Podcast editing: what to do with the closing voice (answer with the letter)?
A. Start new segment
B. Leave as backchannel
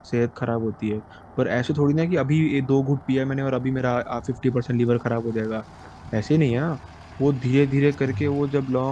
B